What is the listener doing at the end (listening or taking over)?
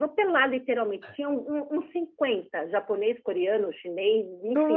listening